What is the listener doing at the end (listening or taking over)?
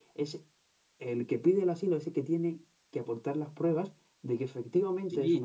taking over